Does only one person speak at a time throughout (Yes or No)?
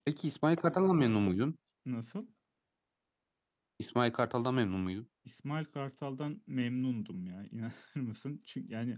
Yes